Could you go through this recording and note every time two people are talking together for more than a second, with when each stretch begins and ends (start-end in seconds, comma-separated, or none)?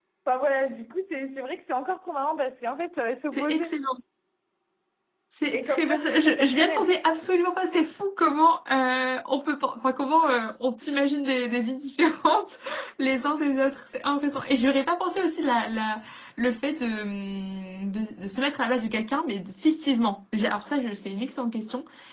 5.5-6.9